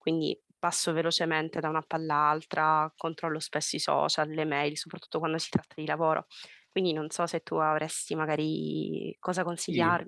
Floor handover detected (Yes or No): Yes